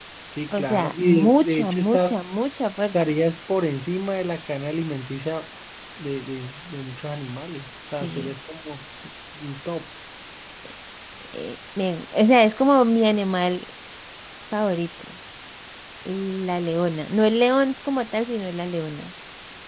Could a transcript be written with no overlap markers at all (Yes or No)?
No